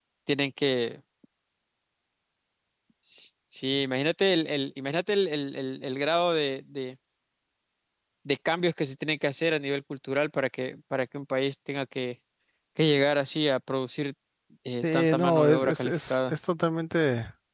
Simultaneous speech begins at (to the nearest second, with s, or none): 15 s